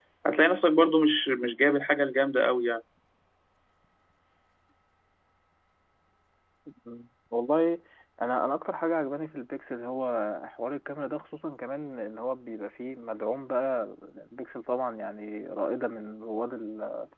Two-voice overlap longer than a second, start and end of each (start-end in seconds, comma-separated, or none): none